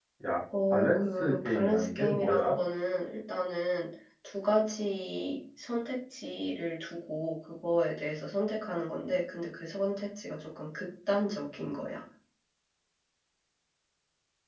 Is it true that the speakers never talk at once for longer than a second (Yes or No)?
No